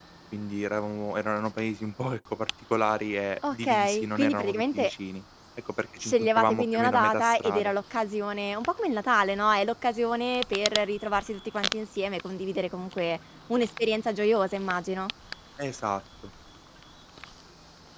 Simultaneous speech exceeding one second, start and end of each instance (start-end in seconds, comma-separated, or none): 3.5-4.9, 6.0-7.7